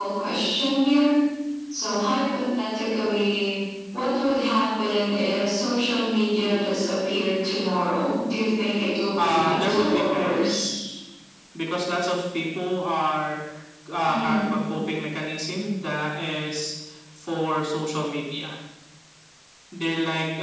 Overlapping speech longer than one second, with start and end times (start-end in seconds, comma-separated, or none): 9.2-10.7